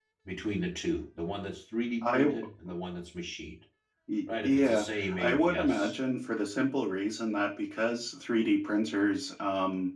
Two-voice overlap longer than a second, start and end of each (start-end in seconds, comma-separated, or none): 4.4-5.9